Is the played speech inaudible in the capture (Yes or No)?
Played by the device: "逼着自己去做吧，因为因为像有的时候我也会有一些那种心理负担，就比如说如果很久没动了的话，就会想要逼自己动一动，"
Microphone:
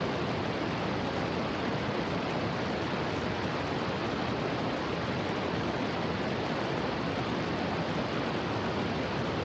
Yes